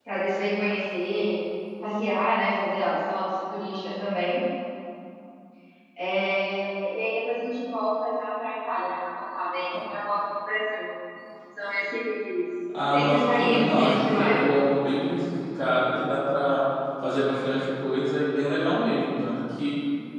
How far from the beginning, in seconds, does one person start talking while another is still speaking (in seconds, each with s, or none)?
12.9 s